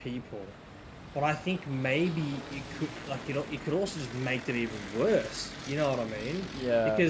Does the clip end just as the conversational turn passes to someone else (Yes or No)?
No